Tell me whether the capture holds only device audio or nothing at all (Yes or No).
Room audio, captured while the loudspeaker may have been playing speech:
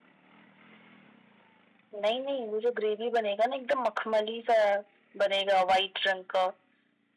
Yes